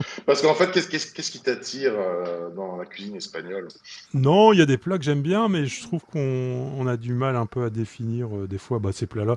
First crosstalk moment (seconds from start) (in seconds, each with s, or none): none